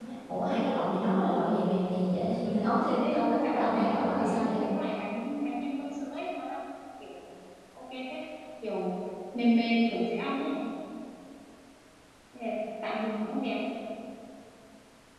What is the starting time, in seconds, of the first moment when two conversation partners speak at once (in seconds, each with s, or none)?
3.0 s